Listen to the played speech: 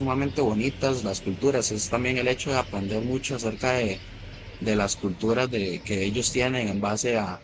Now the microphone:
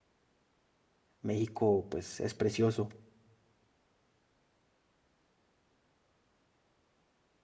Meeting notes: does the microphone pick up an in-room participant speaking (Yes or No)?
Yes